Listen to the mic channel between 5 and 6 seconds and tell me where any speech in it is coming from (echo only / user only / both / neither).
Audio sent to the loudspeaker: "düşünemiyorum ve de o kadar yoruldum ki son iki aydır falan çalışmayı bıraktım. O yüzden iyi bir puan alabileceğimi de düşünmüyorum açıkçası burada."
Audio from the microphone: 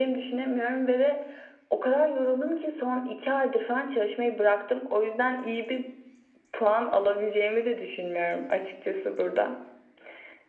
echo only